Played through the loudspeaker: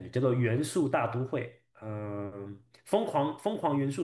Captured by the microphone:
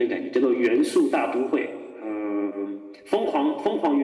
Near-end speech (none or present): none